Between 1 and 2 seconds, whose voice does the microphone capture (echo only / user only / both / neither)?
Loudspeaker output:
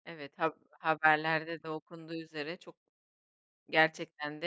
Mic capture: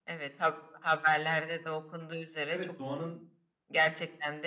echo only